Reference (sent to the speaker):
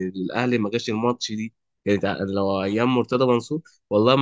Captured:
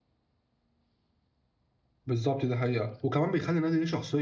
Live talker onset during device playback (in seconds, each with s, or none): 2.0 s